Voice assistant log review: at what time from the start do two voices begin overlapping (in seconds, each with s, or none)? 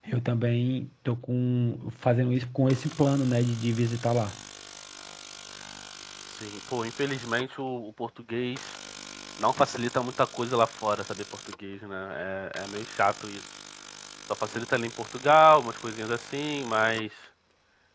none